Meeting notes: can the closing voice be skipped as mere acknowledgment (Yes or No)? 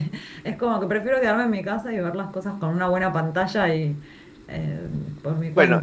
No